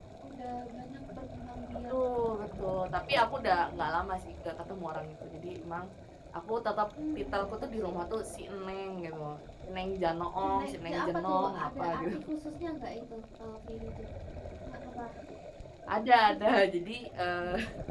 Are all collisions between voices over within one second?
No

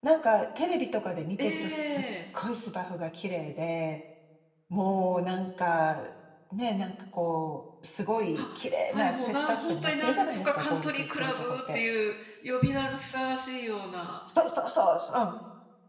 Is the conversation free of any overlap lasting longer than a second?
No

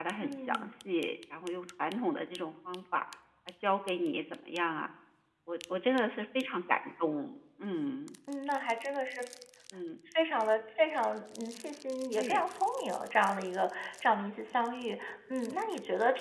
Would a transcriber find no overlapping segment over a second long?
Yes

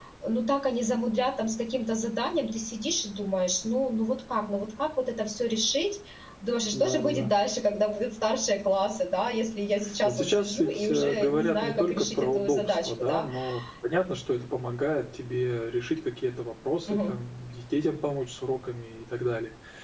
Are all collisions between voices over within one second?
No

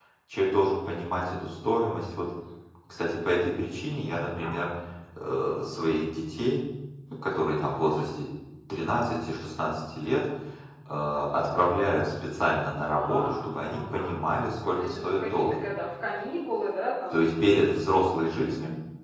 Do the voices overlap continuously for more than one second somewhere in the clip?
Yes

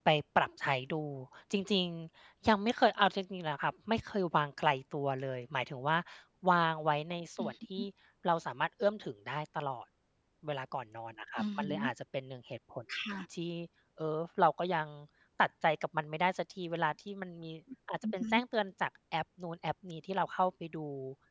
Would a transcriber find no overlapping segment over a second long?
Yes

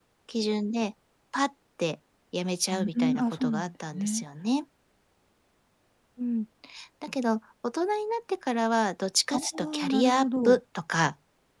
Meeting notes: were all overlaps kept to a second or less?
No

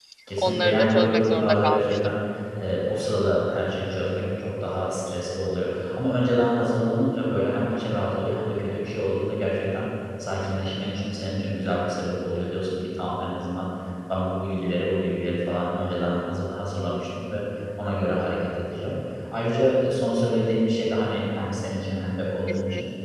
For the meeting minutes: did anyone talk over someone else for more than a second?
Yes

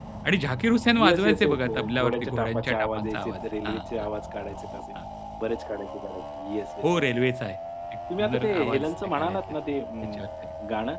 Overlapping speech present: Yes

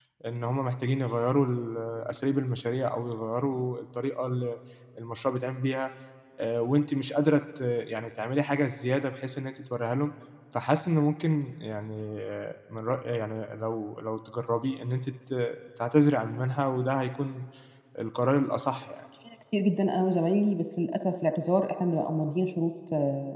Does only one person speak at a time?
Yes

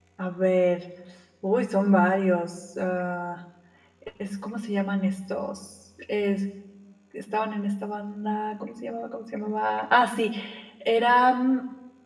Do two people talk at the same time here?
No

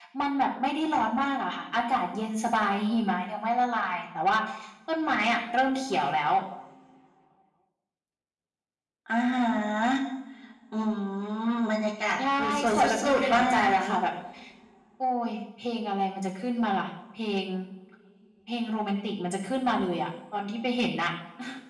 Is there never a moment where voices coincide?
No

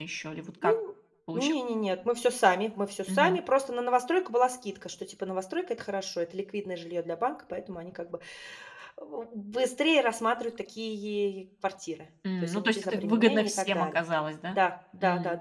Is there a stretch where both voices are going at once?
Yes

